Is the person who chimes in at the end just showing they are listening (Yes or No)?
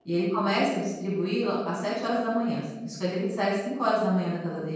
No